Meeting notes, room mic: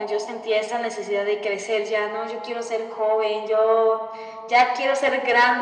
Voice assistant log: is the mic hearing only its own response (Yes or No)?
Yes